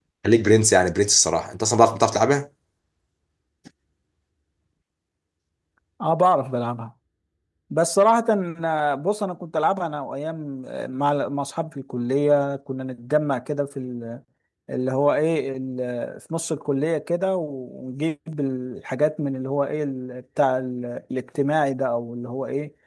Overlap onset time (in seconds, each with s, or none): none